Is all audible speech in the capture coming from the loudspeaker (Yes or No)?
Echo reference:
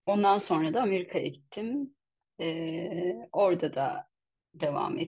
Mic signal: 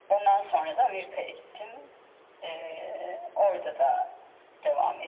Yes